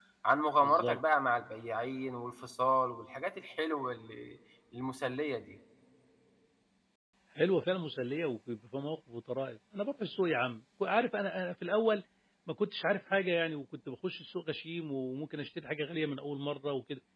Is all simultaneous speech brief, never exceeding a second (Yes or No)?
Yes